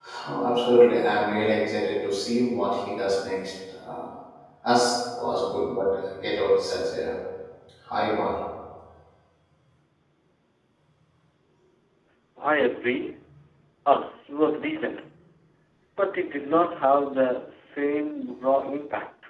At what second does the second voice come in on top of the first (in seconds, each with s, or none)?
none